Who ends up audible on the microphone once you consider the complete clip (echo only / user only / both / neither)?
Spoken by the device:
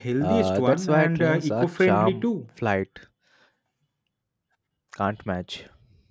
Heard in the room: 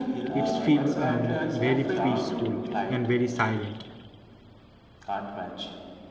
both